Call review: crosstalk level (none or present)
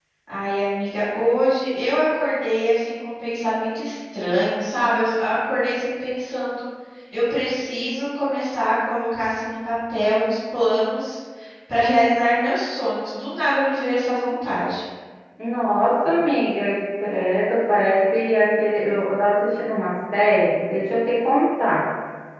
none